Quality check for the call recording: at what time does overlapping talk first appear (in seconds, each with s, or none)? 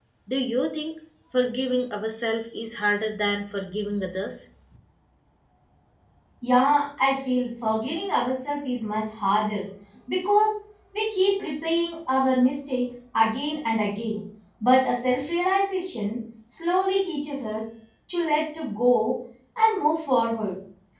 none